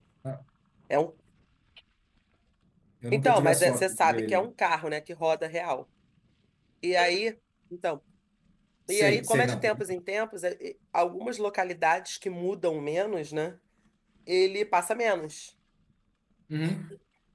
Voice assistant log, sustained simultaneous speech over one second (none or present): present